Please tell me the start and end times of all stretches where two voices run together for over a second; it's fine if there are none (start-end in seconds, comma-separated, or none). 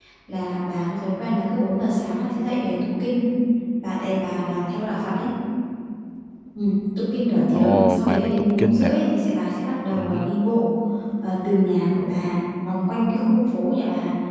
7.5-8.9